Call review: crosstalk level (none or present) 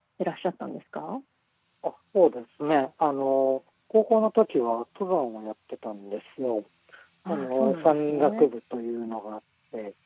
present